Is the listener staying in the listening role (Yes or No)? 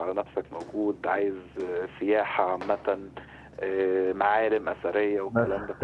No